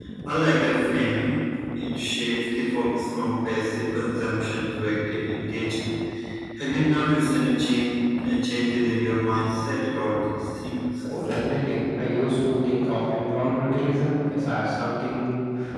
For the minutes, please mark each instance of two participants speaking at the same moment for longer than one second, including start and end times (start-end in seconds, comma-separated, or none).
none